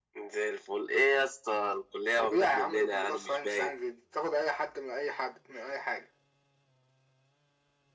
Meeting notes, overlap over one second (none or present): present